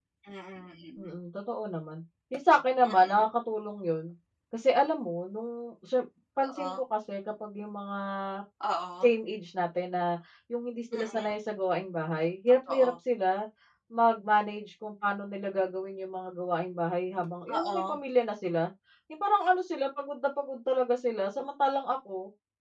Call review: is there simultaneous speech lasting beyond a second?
No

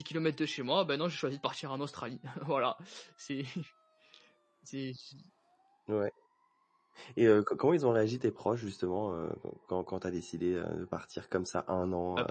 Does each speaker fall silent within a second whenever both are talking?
Yes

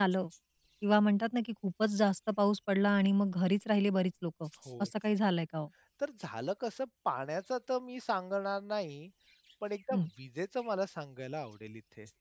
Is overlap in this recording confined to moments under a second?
Yes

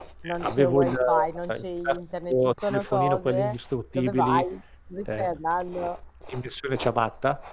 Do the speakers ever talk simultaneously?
Yes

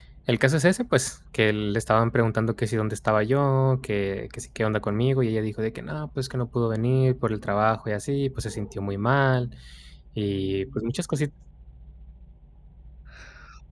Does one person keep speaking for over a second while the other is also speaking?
No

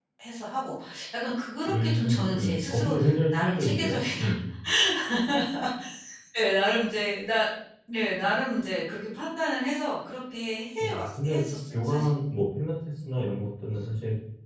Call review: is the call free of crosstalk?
No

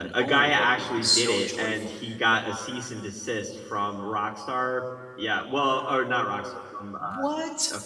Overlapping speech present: Yes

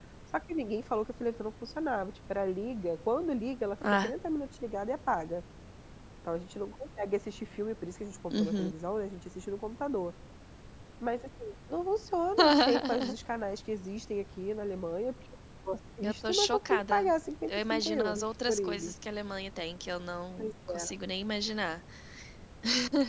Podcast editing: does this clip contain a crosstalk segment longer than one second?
Yes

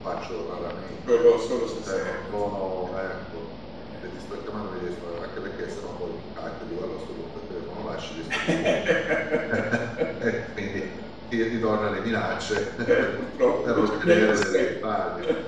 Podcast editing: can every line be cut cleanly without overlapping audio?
No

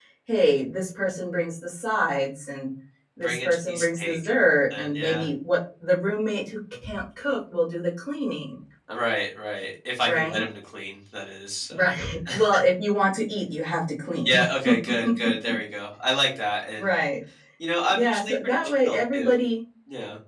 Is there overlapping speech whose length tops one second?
Yes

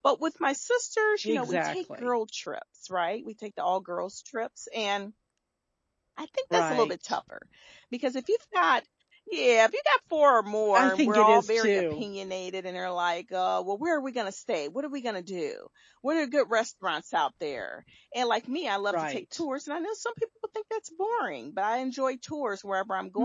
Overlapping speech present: Yes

